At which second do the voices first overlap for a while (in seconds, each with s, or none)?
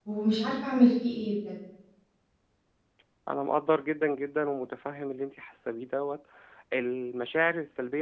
none